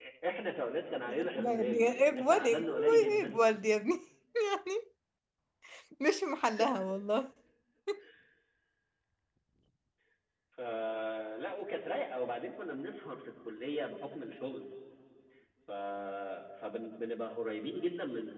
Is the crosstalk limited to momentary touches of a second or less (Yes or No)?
No